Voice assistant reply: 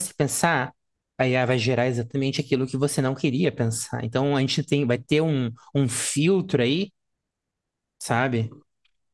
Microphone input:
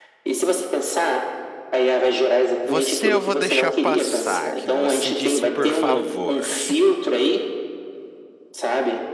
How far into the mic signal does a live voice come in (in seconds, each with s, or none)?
2.6 s